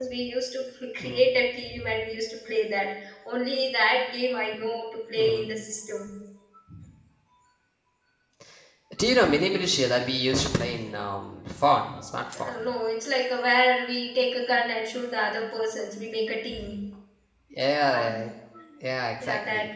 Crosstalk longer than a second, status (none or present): none